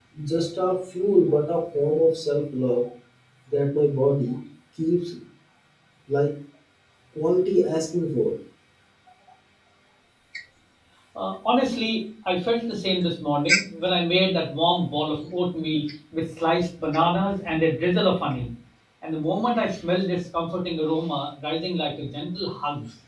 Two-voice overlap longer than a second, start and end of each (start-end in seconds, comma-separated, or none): none